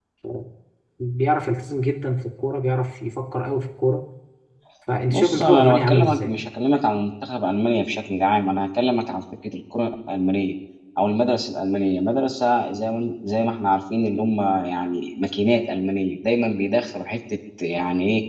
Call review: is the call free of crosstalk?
No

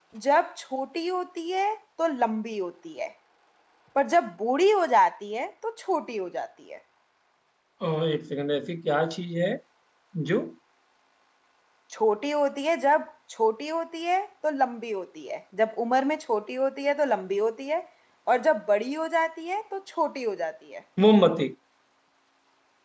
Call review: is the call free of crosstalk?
Yes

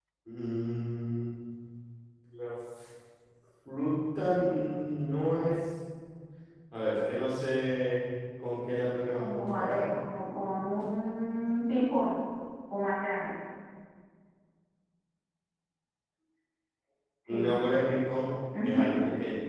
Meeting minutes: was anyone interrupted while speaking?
Yes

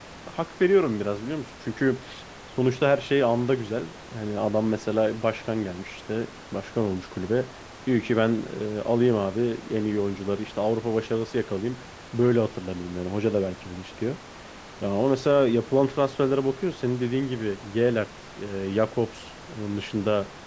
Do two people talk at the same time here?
No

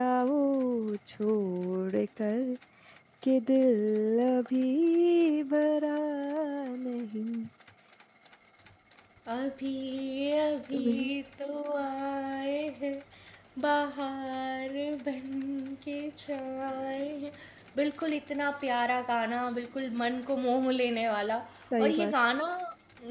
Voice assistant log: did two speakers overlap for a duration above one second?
No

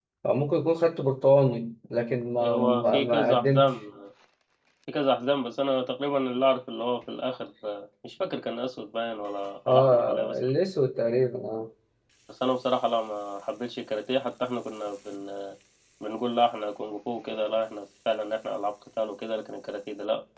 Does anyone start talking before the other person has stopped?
Yes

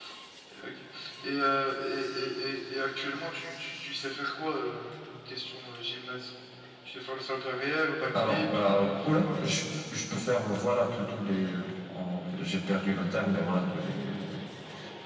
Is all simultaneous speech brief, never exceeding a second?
No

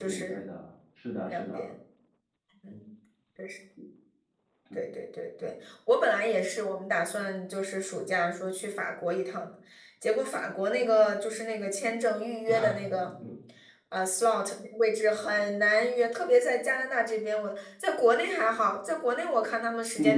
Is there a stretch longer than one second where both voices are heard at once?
No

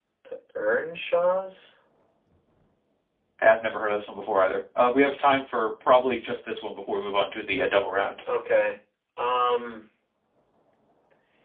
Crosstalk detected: No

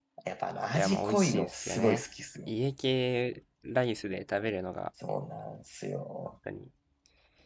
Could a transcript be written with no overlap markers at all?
No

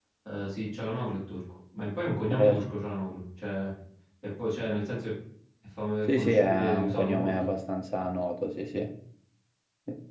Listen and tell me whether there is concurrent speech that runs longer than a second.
Yes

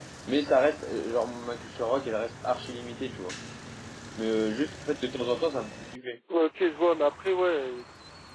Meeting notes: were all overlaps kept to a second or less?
Yes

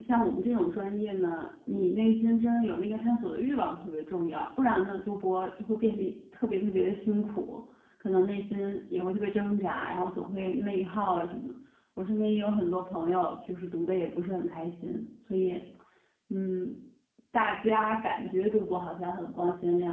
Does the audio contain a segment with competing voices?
No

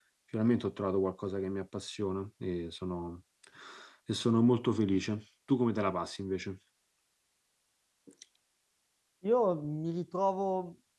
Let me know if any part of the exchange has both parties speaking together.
No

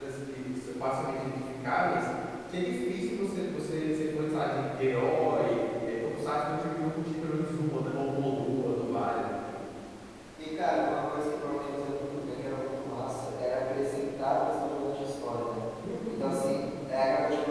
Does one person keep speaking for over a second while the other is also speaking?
No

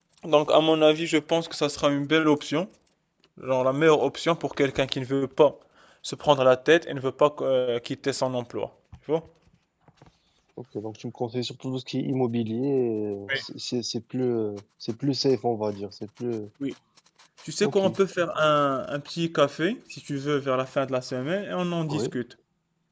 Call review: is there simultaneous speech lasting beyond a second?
No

